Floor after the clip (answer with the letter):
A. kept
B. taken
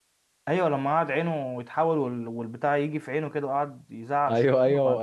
B